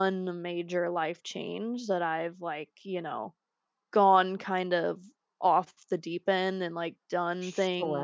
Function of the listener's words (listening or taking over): listening